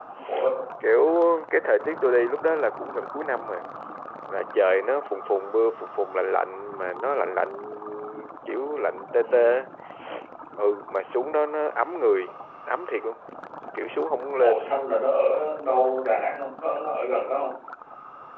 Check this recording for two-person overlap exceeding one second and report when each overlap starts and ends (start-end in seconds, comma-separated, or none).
none